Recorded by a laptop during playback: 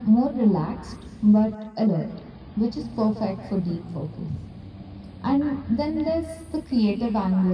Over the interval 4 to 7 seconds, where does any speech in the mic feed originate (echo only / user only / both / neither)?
echo only